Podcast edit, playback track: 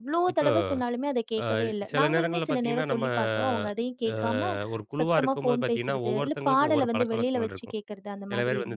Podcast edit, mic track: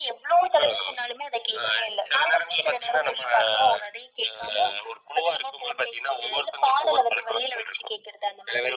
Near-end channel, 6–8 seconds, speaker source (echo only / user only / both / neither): echo only